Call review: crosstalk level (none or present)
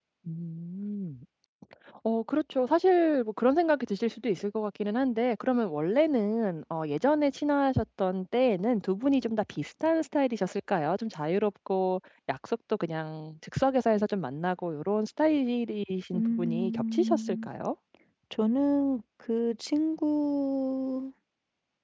present